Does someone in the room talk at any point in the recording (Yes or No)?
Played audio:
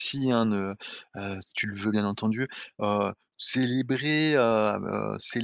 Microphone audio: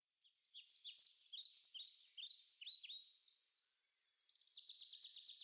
No